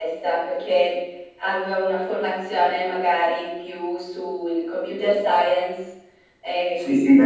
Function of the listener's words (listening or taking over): taking over